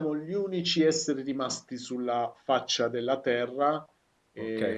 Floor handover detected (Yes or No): Yes